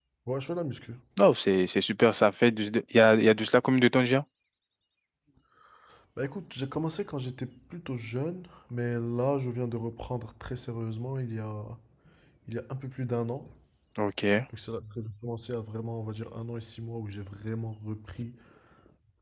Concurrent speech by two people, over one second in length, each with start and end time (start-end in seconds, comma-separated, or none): none